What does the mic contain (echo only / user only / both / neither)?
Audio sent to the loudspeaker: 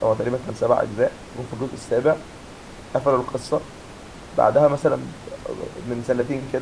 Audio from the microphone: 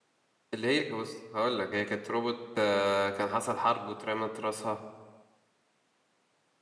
user only